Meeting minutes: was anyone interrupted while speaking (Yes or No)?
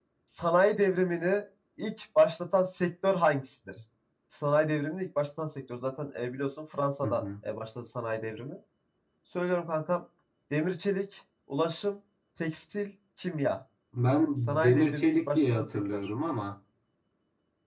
Yes